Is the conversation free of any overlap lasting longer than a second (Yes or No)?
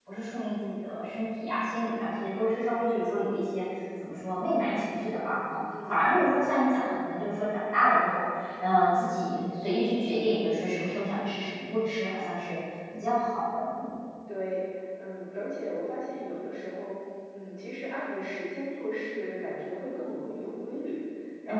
Yes